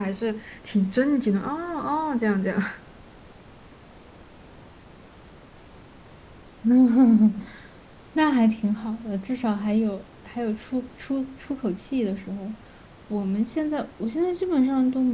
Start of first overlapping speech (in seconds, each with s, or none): none